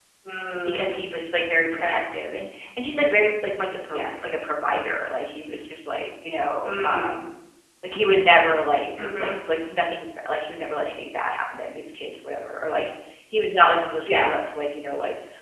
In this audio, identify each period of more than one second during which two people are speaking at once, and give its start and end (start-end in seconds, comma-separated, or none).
none